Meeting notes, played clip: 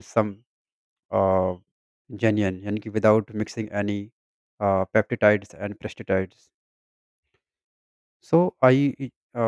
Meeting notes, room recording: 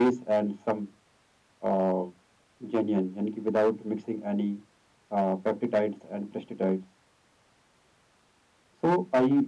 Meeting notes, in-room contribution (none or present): none